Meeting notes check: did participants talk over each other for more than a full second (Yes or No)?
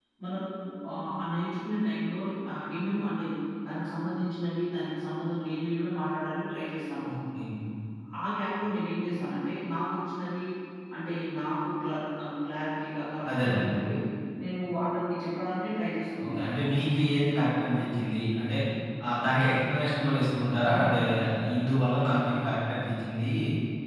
No